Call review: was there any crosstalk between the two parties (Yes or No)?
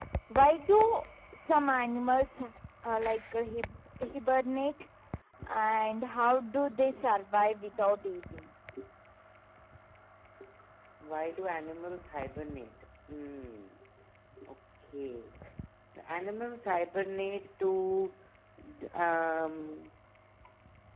No